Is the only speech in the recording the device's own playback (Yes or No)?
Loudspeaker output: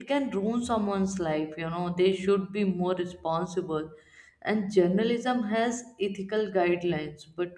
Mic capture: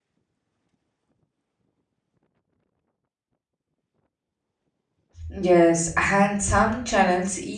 No